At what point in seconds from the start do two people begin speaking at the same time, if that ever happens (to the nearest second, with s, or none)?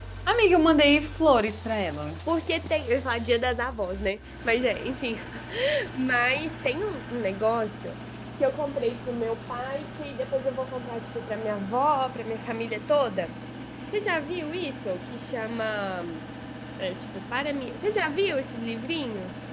none